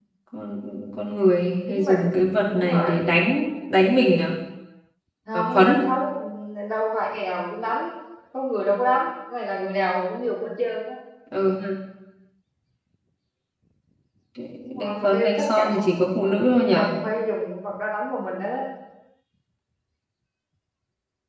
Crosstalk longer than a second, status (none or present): present